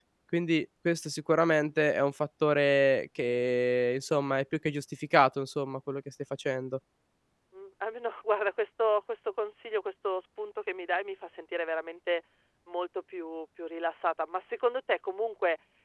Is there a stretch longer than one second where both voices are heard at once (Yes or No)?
No